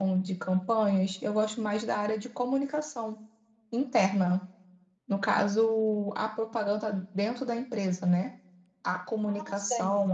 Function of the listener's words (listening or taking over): listening